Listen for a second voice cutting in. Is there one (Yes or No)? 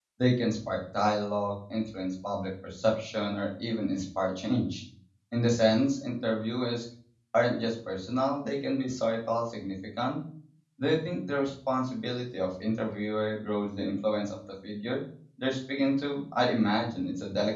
No